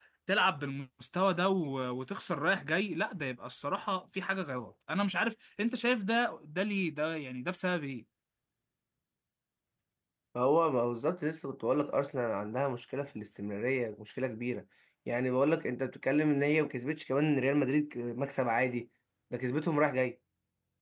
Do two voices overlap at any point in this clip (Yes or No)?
No